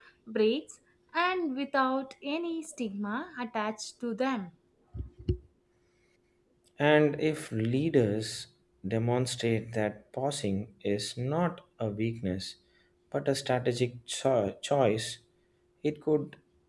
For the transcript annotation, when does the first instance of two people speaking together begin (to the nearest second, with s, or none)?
none